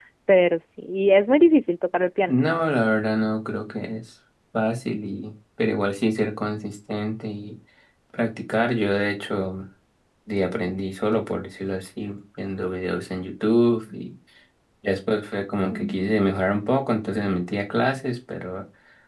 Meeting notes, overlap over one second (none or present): none